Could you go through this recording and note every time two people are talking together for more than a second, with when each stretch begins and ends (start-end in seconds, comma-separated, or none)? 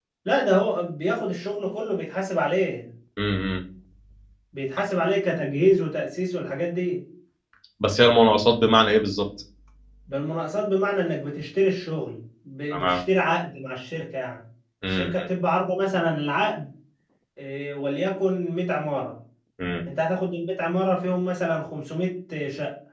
none